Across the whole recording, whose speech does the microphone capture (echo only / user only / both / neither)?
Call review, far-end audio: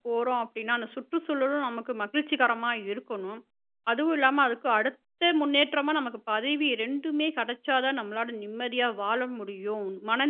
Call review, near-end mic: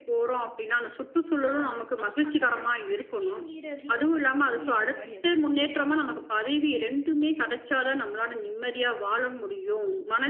both